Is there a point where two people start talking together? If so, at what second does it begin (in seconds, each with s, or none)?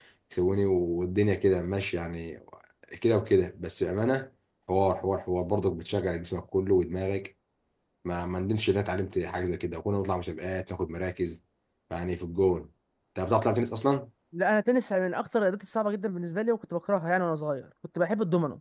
none